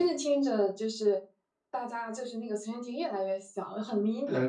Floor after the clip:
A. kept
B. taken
B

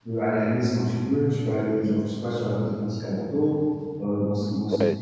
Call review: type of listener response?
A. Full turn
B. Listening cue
A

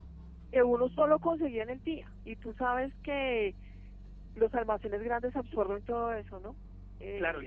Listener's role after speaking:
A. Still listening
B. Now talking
B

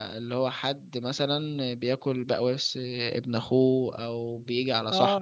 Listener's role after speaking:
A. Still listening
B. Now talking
B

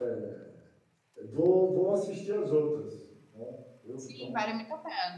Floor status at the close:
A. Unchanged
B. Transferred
B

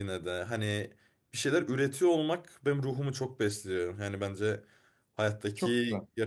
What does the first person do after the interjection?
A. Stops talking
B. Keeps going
B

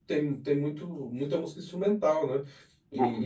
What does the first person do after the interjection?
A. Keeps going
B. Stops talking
B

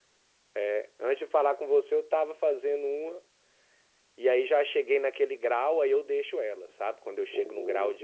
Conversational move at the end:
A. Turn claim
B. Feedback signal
B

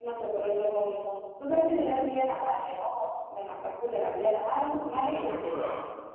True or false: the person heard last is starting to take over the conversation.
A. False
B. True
B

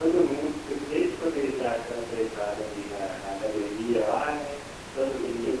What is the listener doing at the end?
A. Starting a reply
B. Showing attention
B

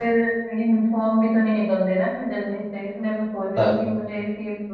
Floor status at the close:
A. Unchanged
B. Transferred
A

